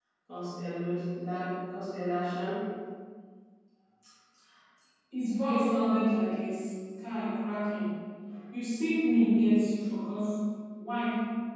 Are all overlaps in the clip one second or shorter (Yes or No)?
Yes